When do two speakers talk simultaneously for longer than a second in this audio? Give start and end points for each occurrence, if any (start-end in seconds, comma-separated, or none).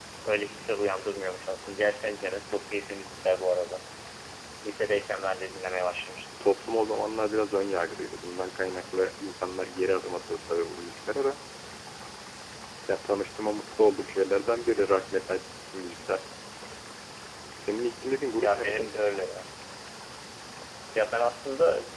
none